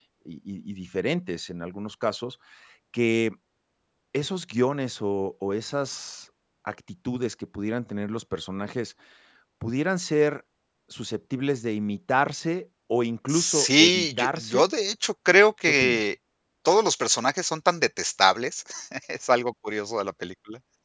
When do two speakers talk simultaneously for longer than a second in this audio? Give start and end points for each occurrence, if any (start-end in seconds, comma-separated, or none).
13.3-14.7